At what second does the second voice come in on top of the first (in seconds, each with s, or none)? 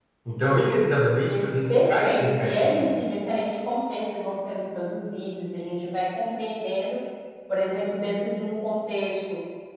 1.3 s